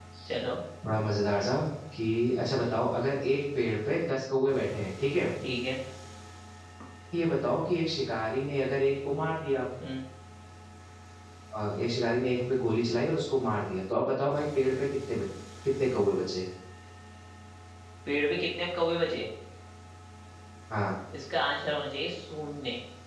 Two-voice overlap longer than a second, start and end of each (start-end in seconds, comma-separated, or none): none